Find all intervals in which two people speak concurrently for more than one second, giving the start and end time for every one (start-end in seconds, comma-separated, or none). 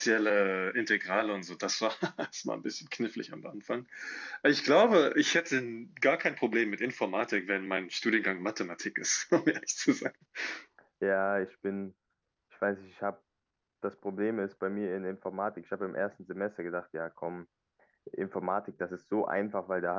none